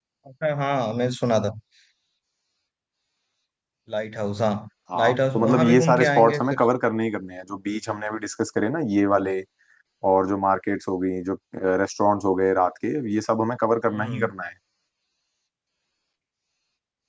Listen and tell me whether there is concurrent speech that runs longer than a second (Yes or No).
Yes